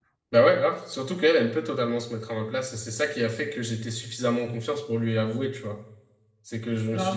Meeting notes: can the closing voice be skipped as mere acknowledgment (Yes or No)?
Yes